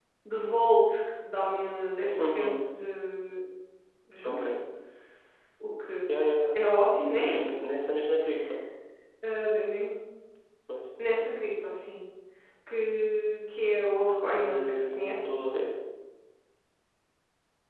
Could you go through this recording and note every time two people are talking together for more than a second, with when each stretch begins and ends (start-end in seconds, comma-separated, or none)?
14.2-15.4